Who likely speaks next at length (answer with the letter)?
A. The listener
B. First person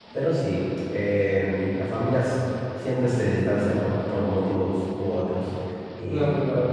A